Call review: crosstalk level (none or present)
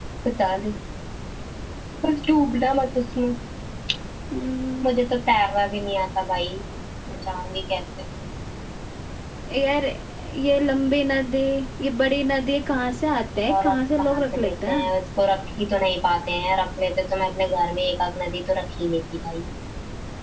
present